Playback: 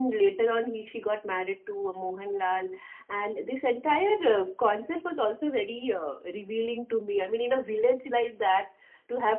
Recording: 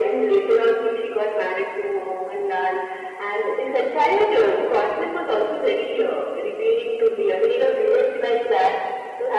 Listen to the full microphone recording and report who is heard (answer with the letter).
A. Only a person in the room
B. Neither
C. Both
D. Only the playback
D